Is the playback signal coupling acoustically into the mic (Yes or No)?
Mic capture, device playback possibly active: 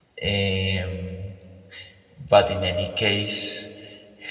No